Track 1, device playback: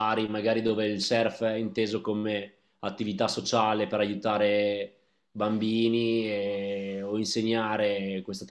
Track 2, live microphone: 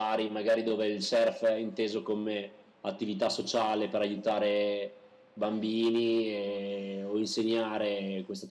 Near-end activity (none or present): none